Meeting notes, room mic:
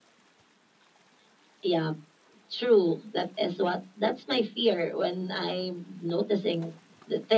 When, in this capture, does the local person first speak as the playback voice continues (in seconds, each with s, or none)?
none